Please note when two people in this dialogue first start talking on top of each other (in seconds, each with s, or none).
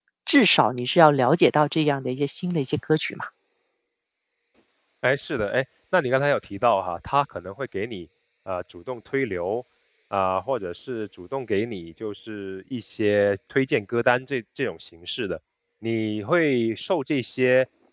none